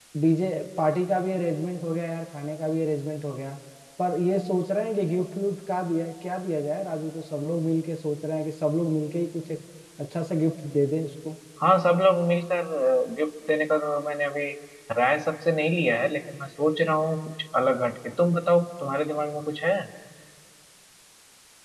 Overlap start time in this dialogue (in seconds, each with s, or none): none